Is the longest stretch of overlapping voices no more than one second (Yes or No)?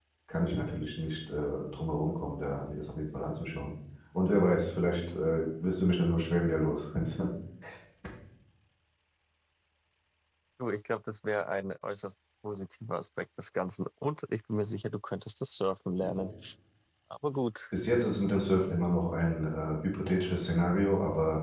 Yes